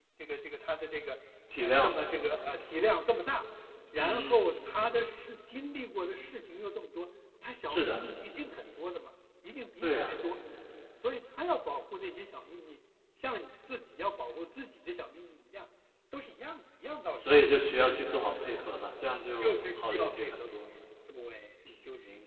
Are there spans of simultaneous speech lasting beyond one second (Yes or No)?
Yes